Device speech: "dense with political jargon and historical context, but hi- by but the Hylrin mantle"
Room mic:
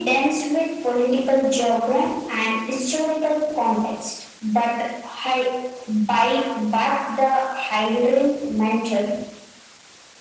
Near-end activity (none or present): none